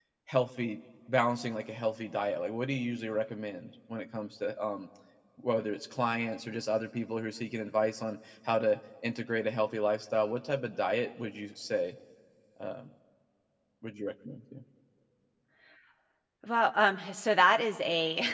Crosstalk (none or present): none